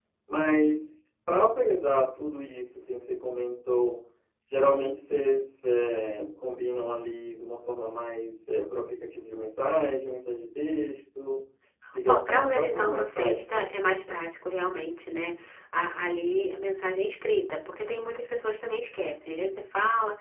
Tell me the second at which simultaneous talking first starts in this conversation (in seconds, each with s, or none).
12.1 s